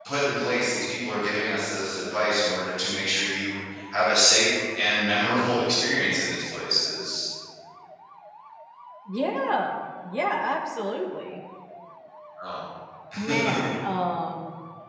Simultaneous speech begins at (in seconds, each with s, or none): none